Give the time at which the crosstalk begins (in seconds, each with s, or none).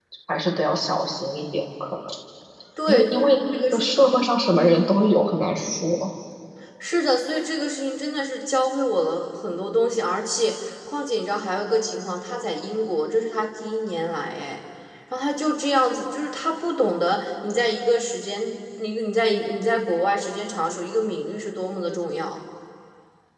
2.9 s